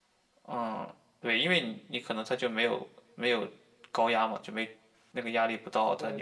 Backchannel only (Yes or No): No